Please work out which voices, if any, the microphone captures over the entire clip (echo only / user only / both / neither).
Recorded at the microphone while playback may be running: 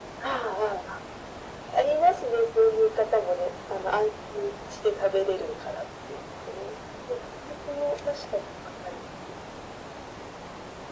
echo only